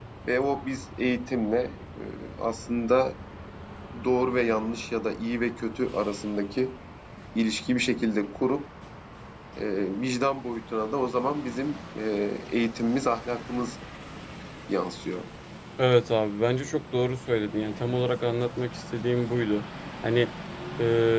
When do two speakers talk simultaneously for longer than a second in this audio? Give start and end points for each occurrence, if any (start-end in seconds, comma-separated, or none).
none